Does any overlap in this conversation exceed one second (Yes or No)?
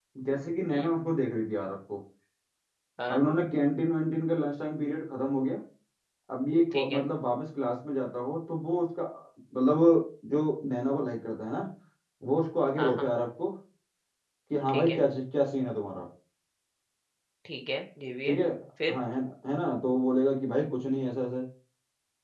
No